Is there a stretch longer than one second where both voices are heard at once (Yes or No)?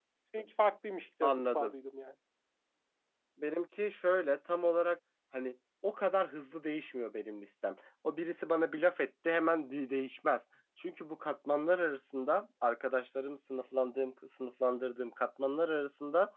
No